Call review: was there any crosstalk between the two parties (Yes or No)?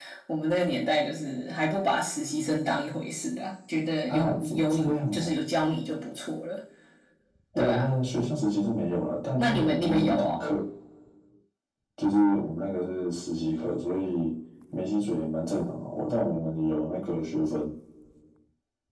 Yes